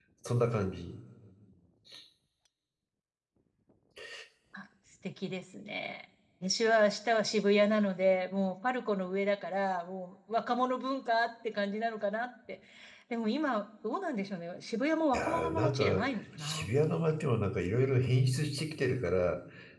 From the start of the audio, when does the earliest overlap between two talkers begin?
15.1 s

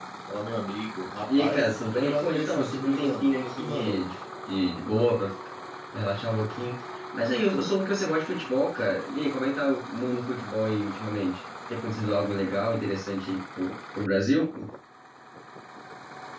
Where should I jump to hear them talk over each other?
1.3 s

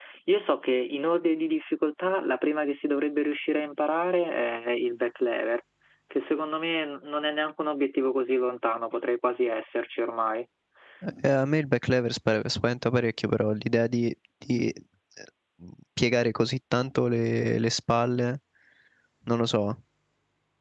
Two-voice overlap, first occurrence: none

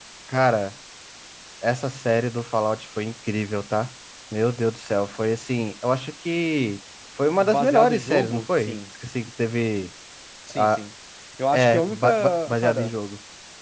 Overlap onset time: 7.4 s

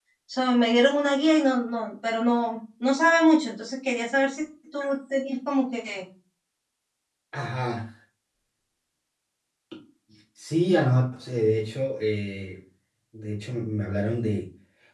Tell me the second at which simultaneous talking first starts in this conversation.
none

